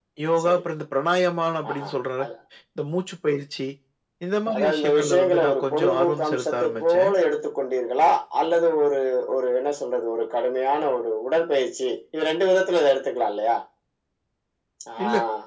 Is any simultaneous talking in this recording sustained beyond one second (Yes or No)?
Yes